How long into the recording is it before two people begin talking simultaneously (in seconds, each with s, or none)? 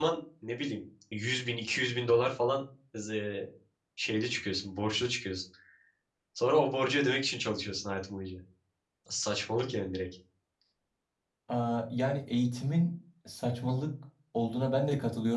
none